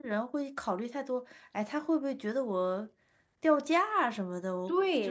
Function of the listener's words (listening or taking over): taking over